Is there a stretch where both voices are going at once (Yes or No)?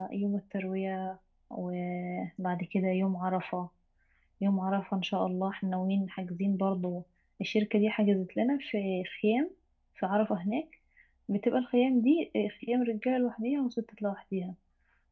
No